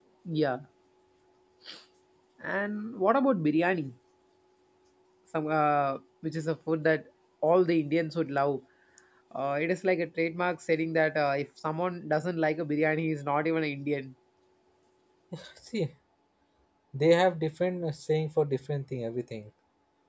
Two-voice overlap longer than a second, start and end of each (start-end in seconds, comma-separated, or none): none